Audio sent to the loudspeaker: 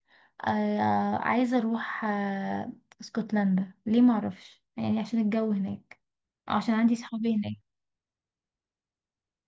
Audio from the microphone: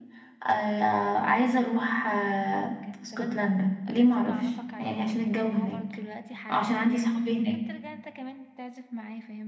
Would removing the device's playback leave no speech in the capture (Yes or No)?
No